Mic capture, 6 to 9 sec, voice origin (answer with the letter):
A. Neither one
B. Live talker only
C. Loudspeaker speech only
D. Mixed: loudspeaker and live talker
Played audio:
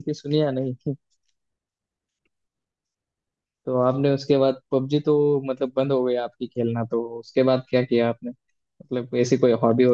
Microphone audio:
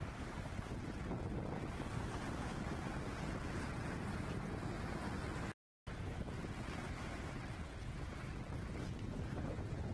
A